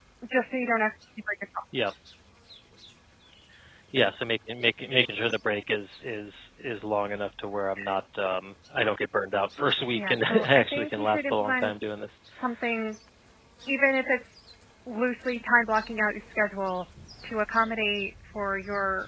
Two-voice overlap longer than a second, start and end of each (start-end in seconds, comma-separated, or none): 9.9-11.7